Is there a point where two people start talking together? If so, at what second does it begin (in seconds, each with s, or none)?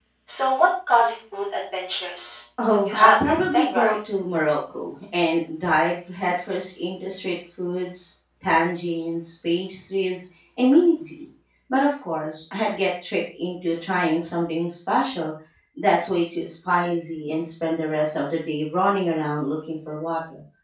2.6 s